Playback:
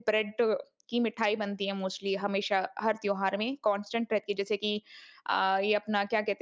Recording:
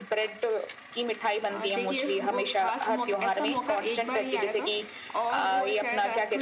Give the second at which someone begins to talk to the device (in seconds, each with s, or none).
1.5 s